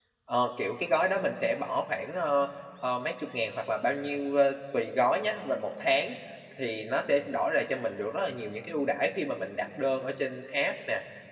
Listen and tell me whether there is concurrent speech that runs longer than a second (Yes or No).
No